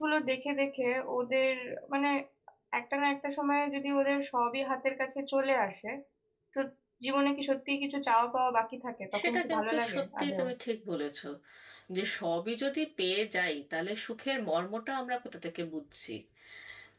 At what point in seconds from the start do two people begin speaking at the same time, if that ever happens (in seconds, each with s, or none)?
9.1 s